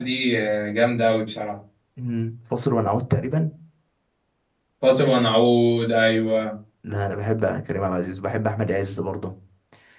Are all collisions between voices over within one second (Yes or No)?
Yes